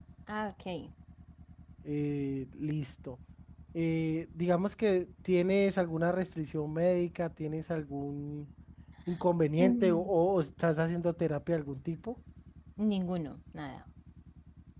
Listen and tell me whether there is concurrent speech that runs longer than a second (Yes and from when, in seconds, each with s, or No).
No